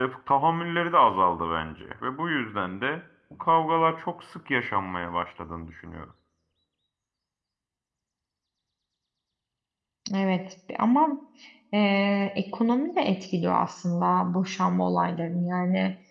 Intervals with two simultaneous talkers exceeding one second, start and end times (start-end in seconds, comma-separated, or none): none